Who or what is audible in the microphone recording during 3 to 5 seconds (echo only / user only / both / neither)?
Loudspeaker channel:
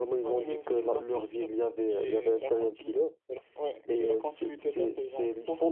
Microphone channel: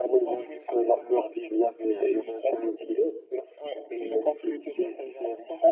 echo only